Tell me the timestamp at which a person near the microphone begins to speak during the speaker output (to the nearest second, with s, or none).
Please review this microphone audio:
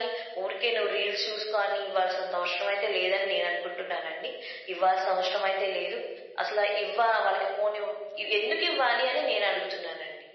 none